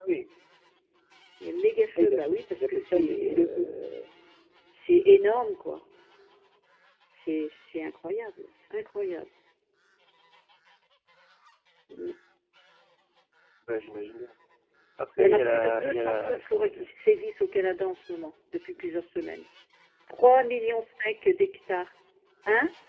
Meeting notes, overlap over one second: present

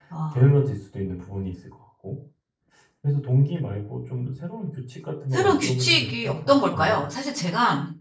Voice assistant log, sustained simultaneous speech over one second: present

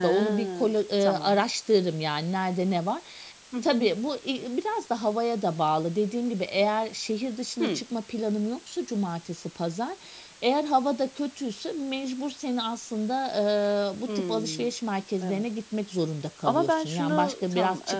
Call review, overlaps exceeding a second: present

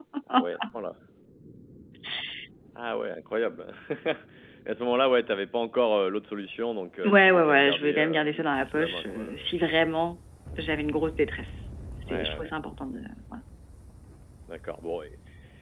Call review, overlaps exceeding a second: present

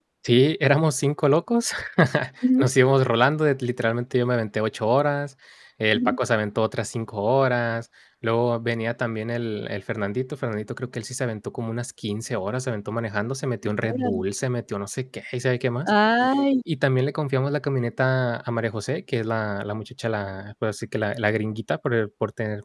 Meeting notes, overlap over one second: none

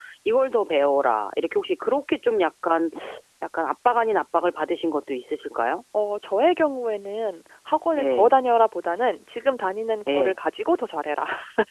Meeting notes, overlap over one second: none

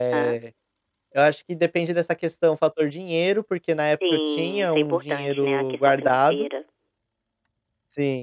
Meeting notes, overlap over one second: present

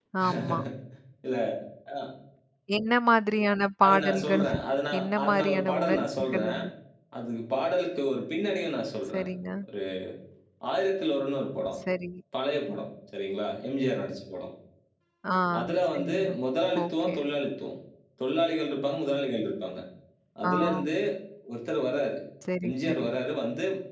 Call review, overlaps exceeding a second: present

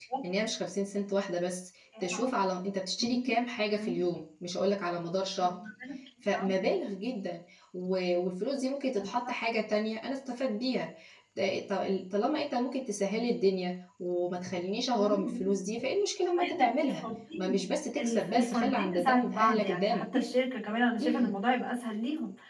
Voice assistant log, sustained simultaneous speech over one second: present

